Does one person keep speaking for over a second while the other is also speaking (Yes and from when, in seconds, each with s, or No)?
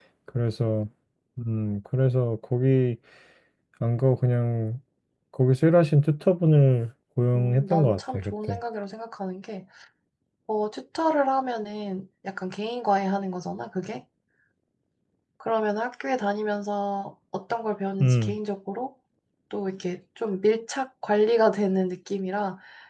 Yes, from 7.3 s